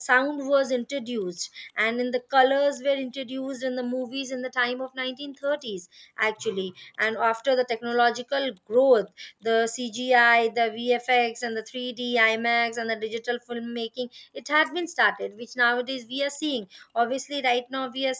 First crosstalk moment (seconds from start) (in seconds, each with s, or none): none